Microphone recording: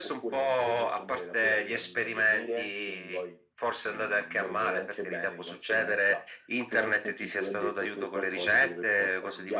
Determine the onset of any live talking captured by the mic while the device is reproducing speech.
none

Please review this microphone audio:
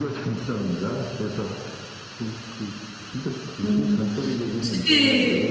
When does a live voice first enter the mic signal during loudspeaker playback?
4 s

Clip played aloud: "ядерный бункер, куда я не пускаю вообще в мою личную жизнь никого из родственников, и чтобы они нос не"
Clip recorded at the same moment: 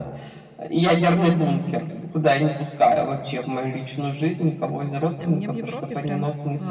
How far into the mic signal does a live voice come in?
5 s

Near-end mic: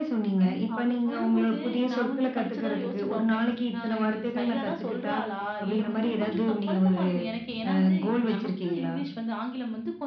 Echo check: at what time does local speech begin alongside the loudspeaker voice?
none

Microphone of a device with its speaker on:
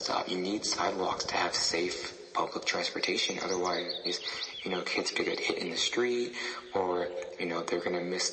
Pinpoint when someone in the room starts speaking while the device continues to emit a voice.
none

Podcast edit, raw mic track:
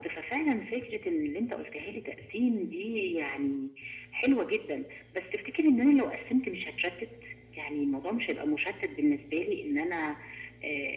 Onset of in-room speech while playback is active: none

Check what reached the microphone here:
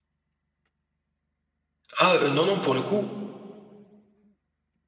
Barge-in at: 2 s

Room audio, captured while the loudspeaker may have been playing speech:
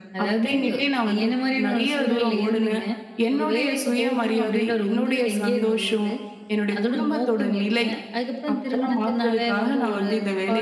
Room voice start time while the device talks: none

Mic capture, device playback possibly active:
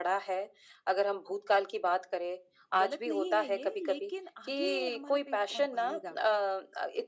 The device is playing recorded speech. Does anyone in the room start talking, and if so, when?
3 s

